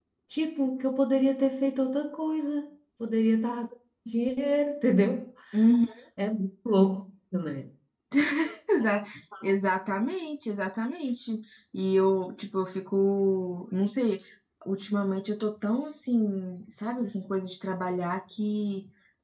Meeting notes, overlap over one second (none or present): none